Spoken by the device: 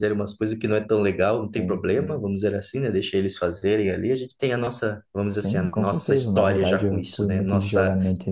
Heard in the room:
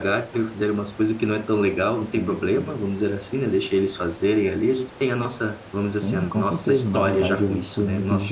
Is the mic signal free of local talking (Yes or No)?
Yes